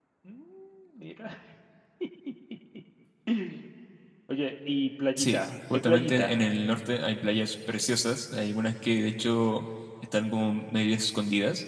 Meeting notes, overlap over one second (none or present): present